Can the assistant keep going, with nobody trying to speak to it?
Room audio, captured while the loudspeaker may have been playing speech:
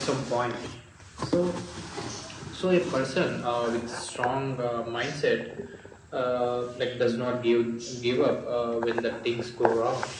Yes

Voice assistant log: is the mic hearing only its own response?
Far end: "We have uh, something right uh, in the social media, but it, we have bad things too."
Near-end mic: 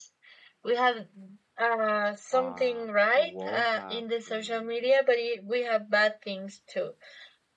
No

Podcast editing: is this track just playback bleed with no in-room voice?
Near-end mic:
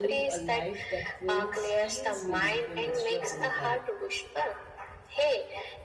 No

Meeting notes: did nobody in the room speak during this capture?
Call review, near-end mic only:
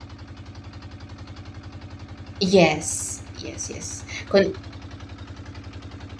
No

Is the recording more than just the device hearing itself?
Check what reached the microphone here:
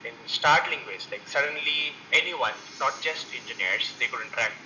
No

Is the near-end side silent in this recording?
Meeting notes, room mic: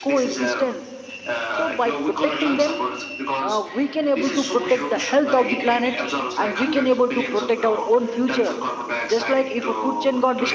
No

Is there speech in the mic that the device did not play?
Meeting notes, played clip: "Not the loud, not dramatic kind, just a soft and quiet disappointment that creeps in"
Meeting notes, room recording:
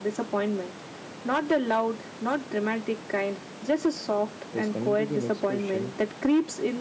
Yes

